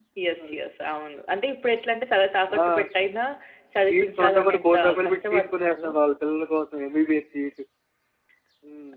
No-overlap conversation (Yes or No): No